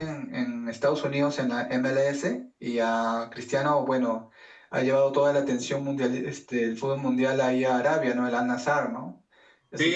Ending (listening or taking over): taking over